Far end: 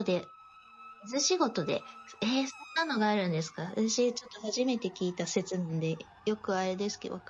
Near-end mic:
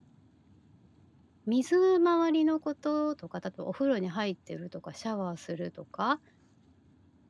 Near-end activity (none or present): present